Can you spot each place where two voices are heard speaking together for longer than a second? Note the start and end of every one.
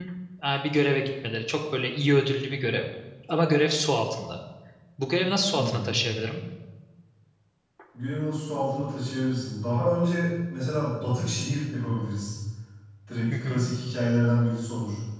none

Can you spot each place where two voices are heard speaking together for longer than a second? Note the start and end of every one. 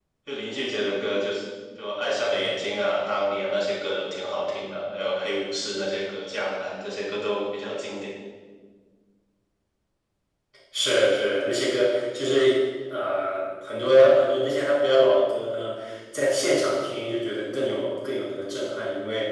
none

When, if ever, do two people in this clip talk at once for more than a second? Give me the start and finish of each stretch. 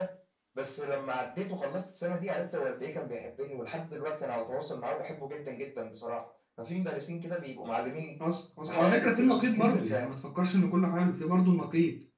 8.7-10.1

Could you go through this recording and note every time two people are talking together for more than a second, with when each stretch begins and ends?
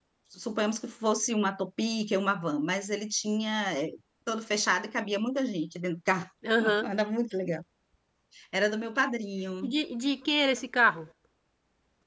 none

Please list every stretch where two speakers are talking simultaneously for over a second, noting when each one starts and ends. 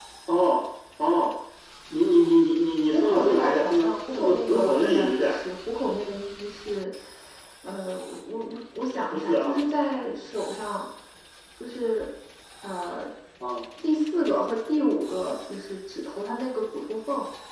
2.9-5.4

